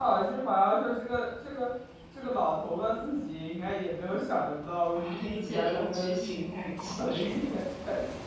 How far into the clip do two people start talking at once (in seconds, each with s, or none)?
5.0 s